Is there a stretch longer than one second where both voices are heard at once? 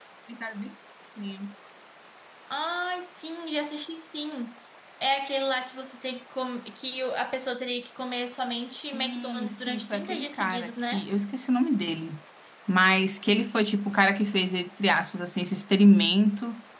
Yes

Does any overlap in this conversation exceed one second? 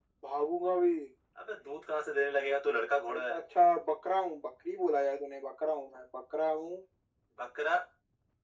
No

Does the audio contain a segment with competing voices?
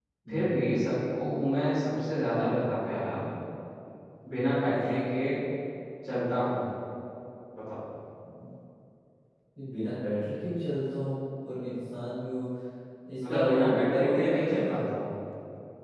Yes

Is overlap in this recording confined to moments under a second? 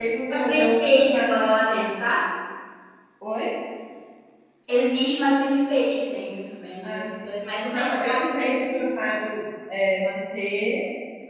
No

